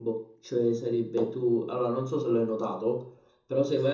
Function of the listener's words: listening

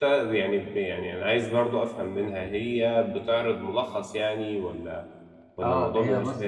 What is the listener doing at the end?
taking over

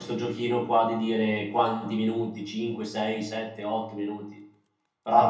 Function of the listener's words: listening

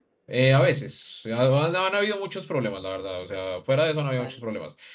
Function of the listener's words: listening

